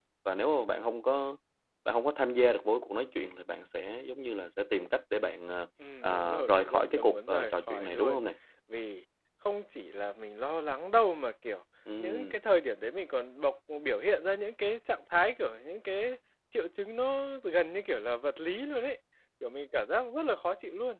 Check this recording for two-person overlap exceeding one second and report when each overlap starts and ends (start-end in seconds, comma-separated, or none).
6.0-8.2